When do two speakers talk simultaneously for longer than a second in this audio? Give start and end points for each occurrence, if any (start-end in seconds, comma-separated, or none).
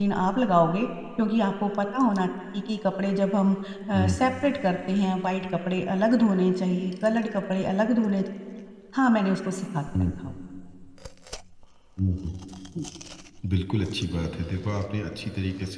none